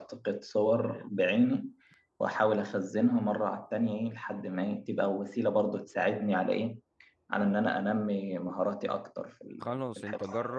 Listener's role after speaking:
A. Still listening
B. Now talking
B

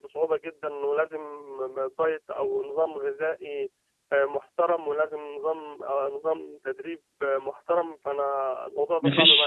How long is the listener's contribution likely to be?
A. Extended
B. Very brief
A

